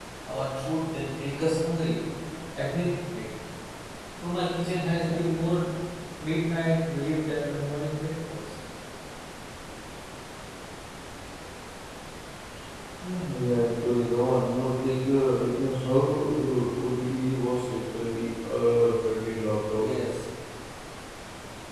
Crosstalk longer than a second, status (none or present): none